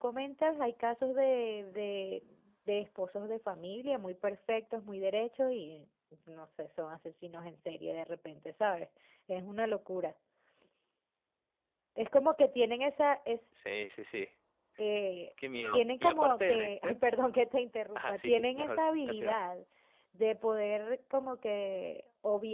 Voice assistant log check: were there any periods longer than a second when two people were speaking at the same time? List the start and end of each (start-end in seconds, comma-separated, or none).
15.7-17.0, 18.0-19.4